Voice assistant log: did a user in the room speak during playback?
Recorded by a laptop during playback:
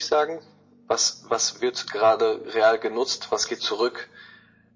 No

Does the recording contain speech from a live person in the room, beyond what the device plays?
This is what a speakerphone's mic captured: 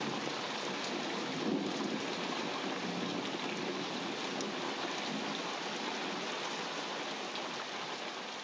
No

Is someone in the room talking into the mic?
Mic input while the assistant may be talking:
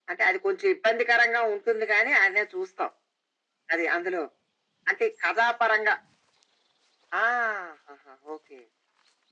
No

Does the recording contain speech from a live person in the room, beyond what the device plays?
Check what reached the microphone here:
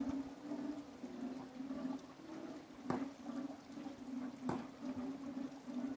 No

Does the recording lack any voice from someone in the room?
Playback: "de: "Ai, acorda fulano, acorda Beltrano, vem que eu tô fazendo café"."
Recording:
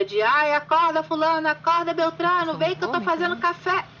No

